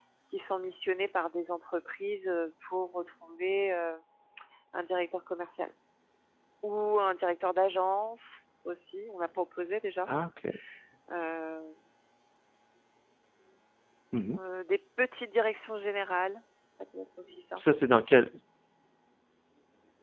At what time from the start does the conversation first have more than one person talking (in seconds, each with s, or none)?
none